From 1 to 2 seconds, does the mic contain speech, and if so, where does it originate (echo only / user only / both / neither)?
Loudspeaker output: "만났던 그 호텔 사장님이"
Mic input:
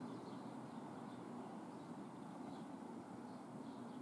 neither